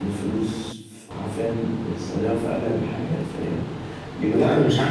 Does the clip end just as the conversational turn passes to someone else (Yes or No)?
Yes